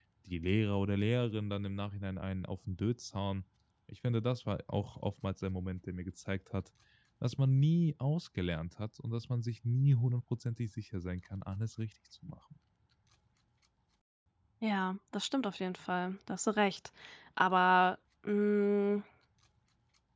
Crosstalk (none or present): none